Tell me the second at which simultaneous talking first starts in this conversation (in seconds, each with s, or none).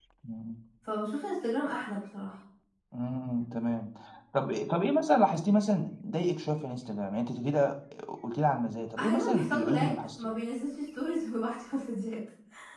9.0 s